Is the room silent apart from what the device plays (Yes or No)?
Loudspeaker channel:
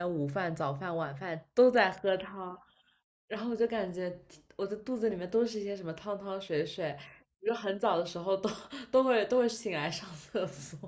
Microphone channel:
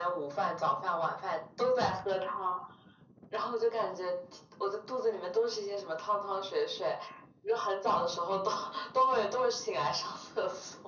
Yes